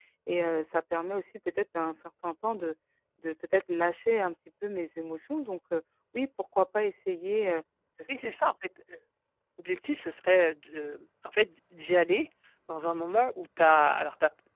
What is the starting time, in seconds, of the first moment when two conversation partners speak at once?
none

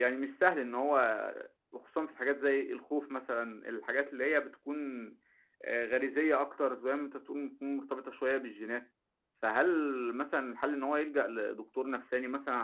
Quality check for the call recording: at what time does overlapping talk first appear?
none

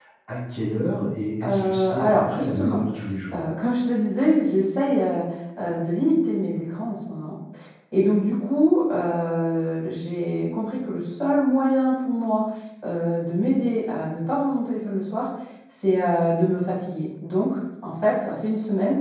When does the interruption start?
1.4 s

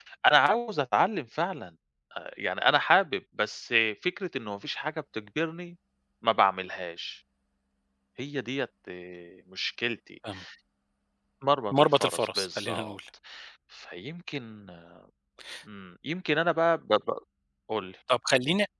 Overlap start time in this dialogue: 11.7 s

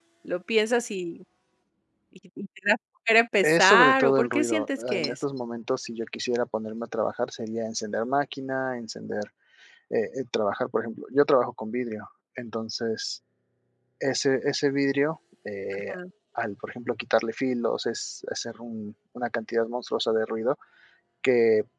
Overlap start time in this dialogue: 3.4 s

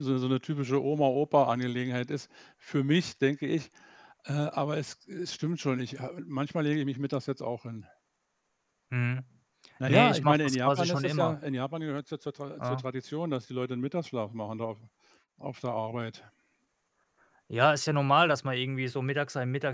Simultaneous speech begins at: 9.9 s

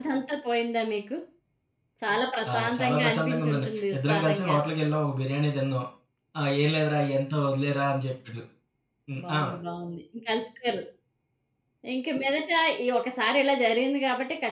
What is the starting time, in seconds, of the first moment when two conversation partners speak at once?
2.5 s

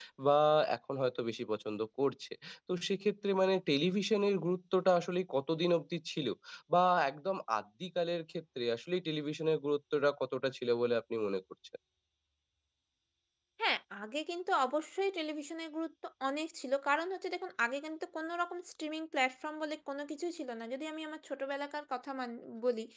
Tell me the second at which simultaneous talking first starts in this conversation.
none

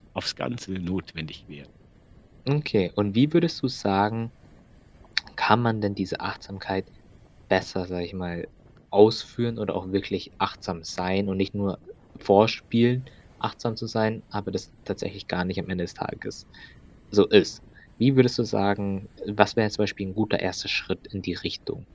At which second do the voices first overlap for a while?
none

